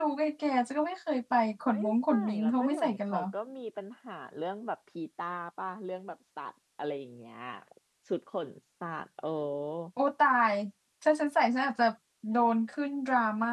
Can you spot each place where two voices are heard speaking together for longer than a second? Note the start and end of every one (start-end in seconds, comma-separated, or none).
1.7-3.2